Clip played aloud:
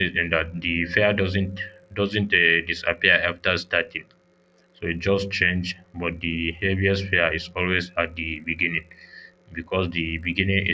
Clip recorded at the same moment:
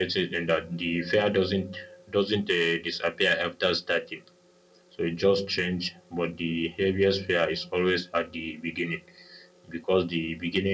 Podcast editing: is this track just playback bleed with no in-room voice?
Yes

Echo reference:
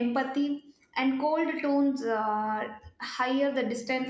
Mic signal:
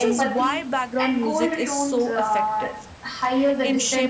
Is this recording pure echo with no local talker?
No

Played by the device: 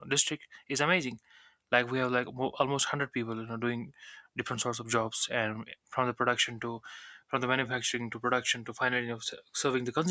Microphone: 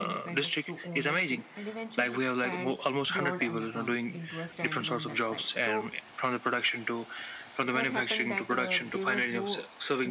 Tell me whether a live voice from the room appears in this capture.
Yes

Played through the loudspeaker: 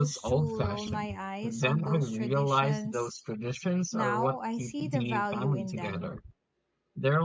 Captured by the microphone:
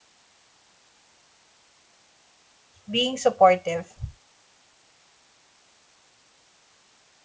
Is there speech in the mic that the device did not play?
Yes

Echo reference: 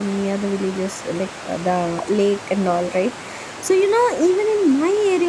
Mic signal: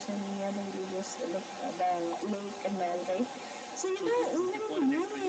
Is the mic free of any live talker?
No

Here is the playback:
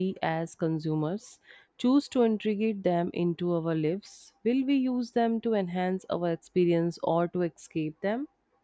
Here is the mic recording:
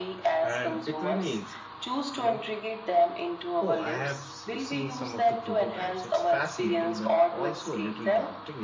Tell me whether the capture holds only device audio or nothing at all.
No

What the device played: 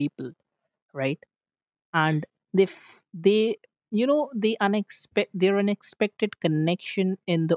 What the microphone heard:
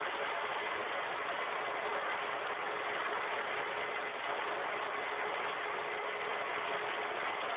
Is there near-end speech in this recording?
No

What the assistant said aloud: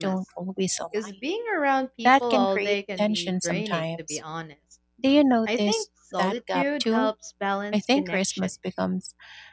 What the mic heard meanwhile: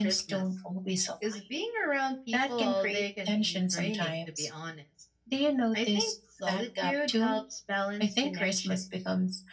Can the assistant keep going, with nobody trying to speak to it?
Yes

